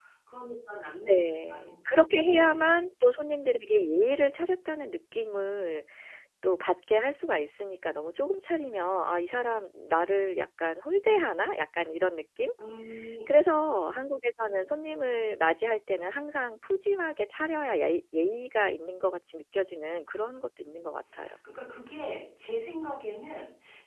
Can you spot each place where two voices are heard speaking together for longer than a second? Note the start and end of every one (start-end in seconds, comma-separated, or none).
1.0-2.6